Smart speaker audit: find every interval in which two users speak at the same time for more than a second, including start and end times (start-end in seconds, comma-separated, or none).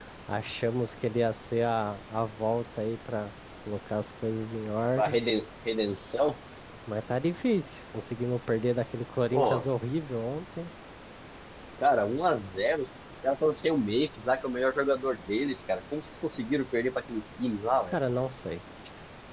none